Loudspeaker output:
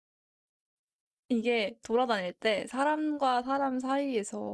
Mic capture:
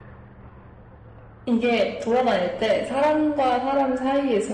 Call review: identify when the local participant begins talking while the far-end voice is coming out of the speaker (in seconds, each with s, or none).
none